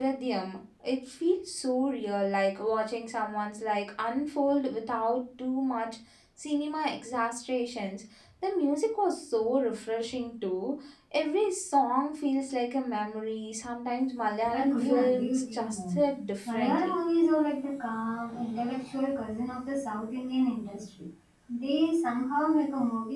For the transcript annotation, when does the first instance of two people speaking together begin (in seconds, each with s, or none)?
14.5 s